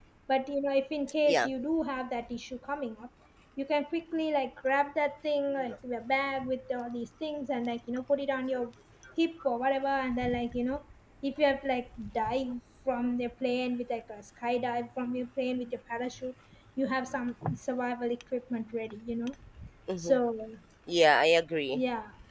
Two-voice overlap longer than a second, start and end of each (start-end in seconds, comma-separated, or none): none